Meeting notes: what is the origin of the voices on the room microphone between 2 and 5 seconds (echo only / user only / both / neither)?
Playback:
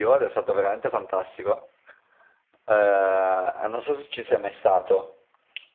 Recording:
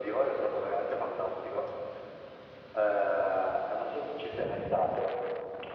echo only